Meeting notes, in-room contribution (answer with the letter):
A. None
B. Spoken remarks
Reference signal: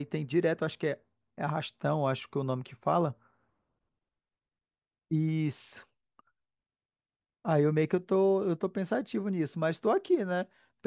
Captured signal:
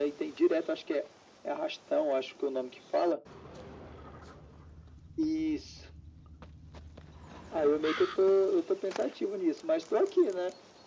A